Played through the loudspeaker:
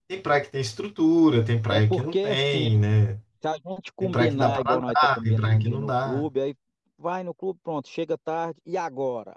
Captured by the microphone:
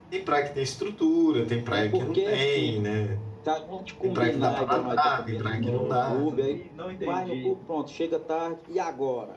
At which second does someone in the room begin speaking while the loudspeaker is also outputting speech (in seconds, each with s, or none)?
5.6 s